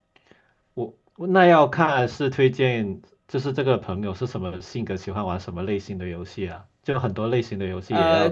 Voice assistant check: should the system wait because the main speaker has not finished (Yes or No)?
No